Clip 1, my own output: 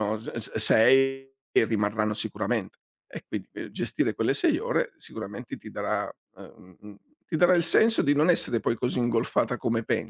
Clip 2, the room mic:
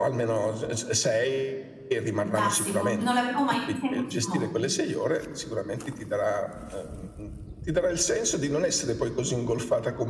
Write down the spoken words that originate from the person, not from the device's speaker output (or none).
Fantastico, non l'avevo mai vista in questo modo.